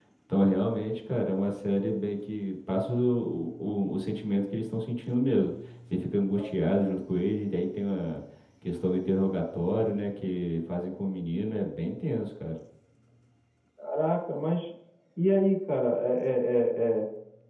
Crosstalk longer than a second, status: none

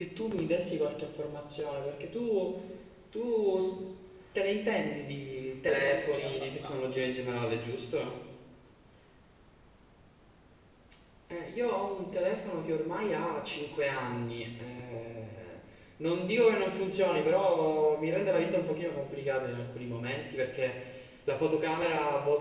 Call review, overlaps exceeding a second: present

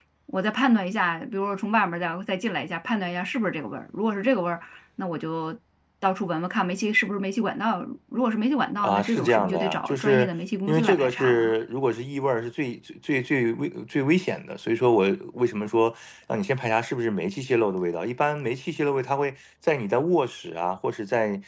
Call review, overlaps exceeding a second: present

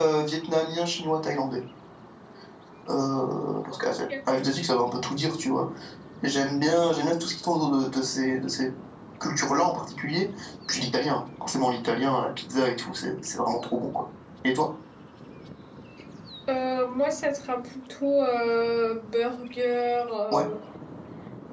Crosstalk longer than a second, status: none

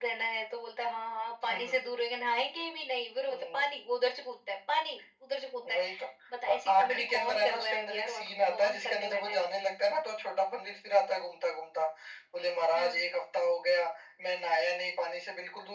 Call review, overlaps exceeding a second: present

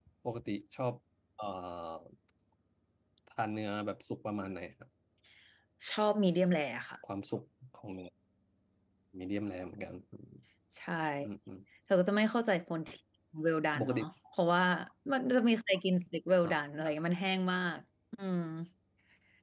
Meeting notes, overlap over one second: none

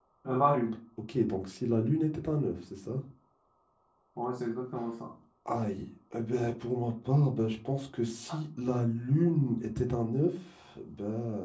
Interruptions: none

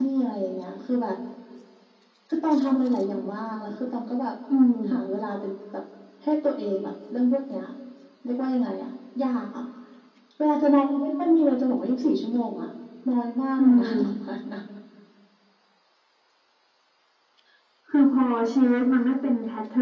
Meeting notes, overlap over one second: none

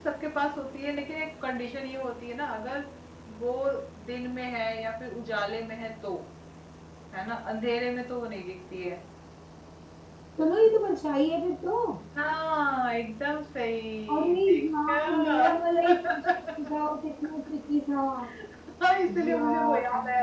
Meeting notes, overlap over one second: present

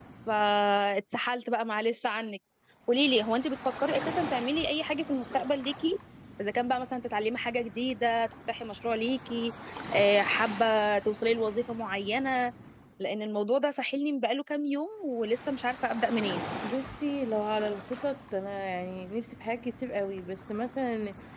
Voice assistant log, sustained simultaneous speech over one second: none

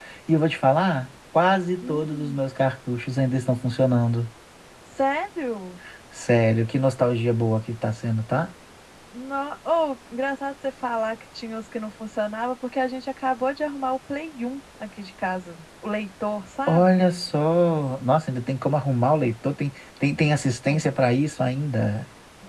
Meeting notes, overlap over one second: none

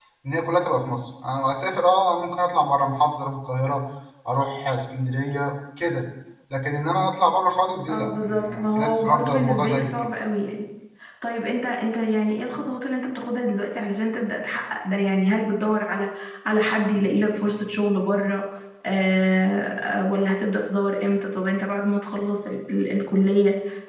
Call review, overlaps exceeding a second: present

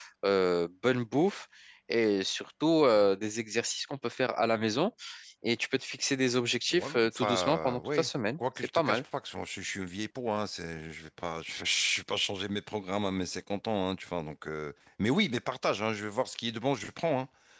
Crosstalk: present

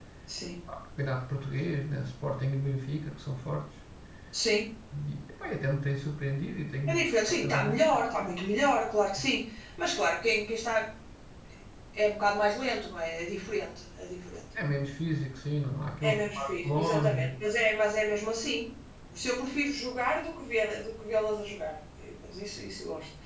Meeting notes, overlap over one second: present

